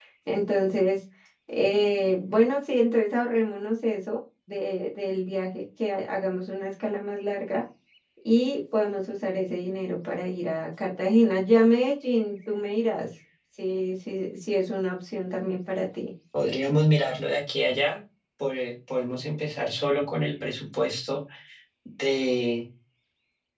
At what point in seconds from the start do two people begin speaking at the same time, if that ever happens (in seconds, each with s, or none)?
none